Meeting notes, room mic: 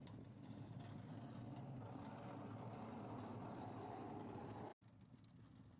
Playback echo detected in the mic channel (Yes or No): No